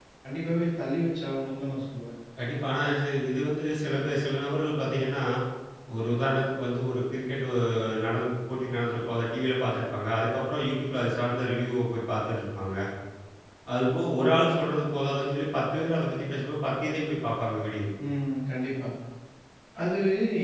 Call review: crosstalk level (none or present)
none